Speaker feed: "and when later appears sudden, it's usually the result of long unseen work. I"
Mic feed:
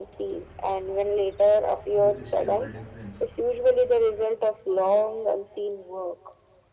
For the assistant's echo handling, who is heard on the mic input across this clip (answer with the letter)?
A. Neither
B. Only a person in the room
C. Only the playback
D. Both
D